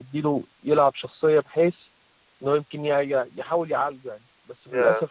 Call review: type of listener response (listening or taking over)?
listening